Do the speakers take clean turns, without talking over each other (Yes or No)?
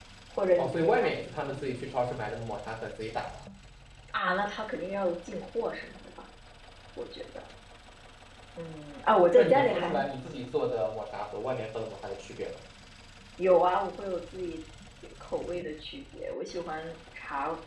No